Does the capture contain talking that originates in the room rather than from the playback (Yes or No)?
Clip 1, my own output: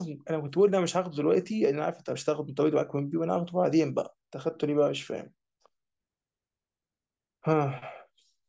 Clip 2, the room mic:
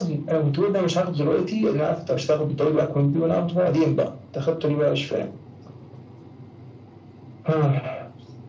No